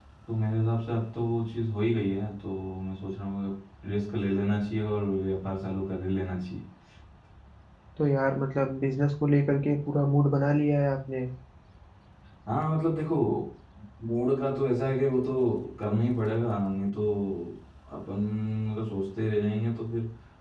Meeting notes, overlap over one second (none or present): none